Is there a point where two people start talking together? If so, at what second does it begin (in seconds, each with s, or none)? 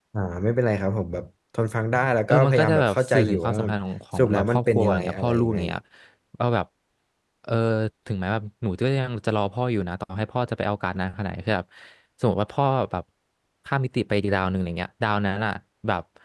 2.3 s